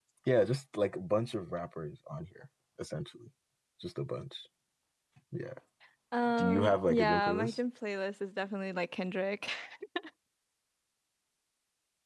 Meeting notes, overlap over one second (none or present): present